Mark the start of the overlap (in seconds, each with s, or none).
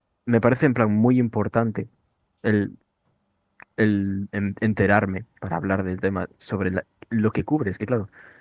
none